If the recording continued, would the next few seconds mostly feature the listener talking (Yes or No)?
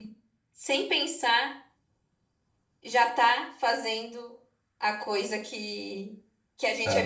No